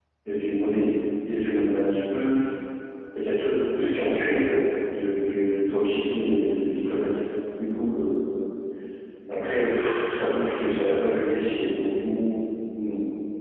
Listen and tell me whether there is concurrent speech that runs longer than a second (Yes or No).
No